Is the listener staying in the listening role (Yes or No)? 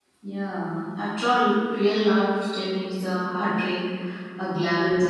Yes